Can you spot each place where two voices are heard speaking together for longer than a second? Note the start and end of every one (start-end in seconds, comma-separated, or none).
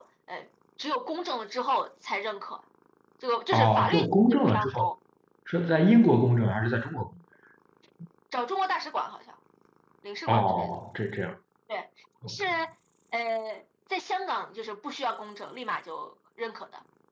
3.5-4.9